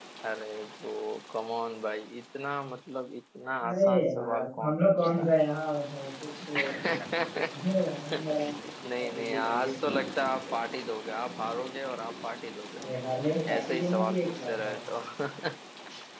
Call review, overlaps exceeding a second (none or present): present